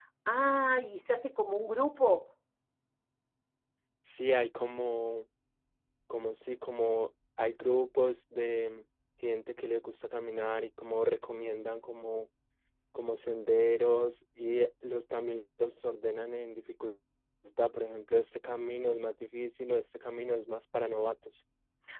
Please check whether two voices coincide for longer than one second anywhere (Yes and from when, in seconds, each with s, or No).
No